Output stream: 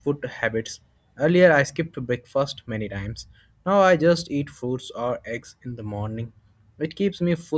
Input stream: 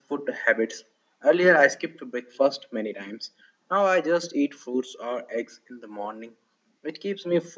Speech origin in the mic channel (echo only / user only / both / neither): echo only